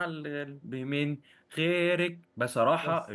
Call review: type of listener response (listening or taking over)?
listening